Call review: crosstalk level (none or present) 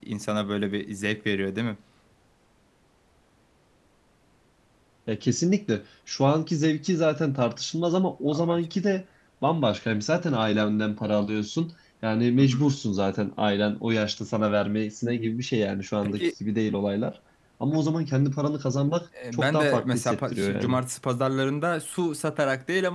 present